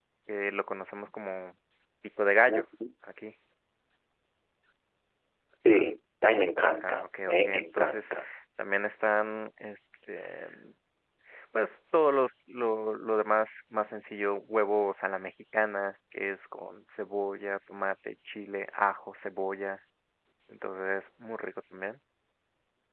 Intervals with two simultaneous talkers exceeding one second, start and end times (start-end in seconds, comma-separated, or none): 6.8-8.1